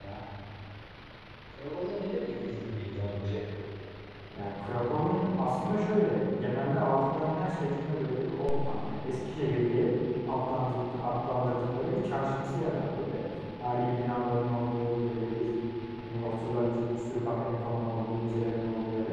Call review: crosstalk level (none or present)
none